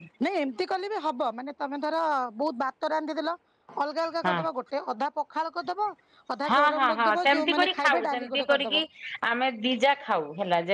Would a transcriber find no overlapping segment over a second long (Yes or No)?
No